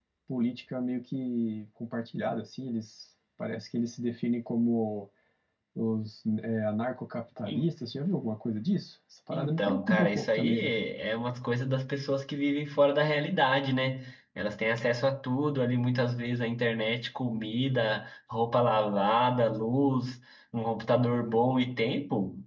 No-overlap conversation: No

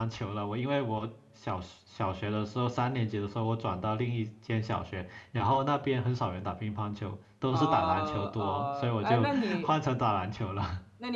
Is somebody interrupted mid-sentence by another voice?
Yes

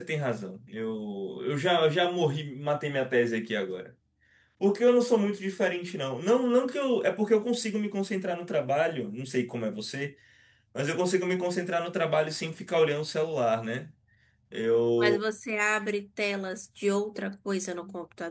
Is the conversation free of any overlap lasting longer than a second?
Yes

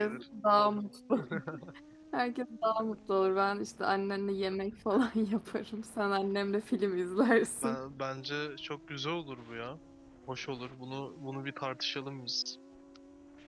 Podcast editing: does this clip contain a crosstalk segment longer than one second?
No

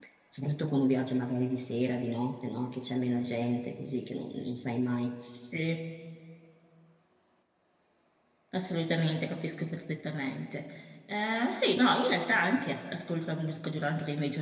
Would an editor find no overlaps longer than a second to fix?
Yes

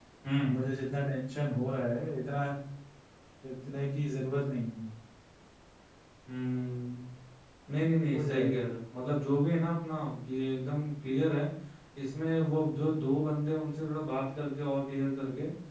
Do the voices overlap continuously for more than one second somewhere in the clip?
No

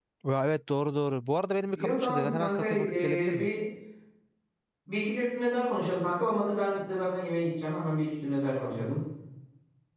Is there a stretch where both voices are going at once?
Yes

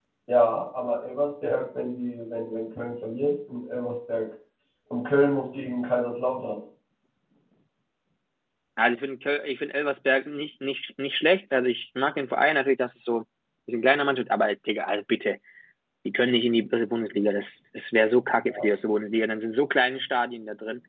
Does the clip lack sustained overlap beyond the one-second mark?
Yes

